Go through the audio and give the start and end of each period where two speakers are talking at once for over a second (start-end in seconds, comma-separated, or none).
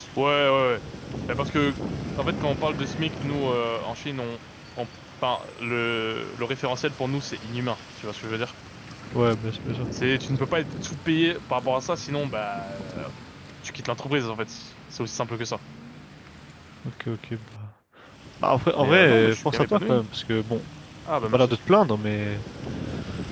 18.8-20.0